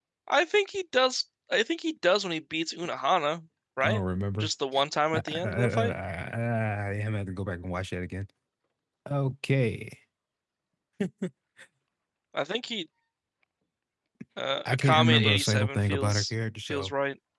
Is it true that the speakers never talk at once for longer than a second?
No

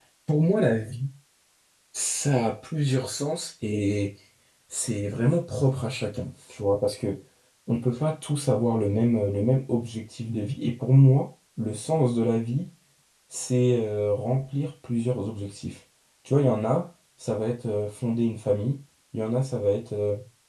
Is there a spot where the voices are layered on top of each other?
No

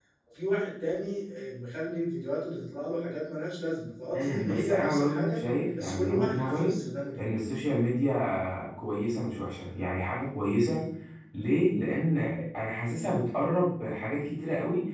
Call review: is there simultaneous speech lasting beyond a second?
Yes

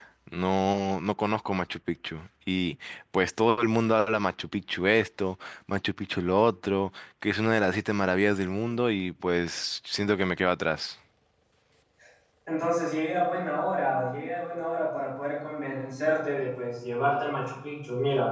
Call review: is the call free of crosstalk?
Yes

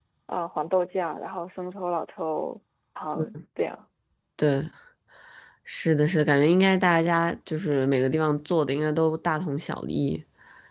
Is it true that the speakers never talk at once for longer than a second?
Yes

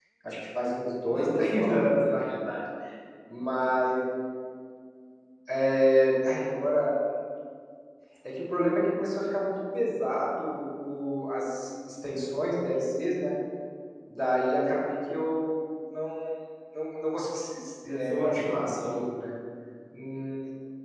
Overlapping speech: Yes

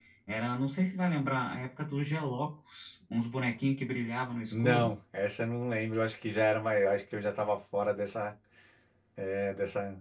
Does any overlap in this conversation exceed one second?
No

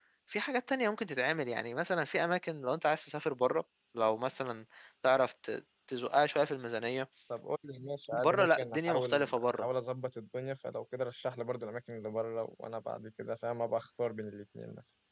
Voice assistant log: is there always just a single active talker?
No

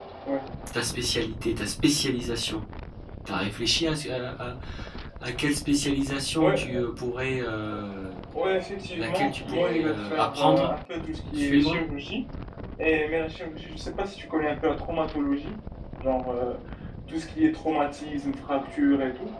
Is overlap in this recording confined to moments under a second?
No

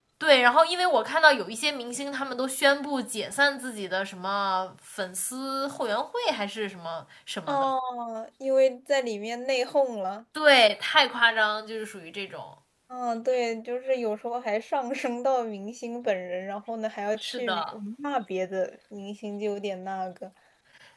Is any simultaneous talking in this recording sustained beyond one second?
No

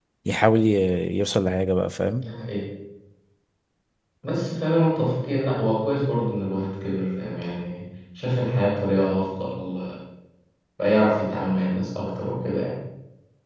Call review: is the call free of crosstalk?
Yes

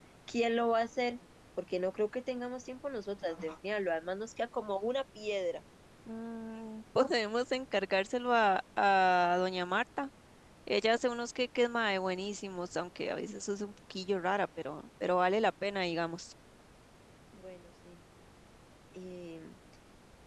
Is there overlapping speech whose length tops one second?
No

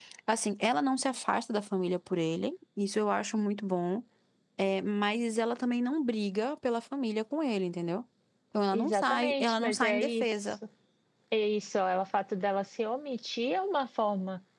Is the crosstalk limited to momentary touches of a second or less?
No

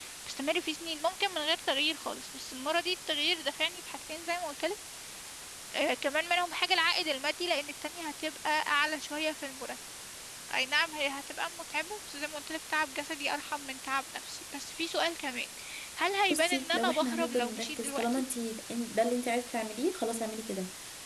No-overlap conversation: No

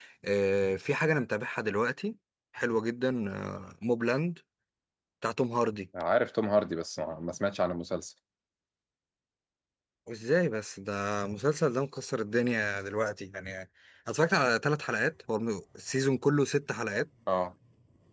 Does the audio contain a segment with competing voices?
No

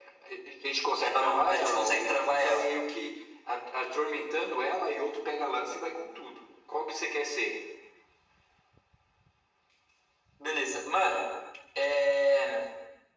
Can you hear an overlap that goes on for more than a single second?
Yes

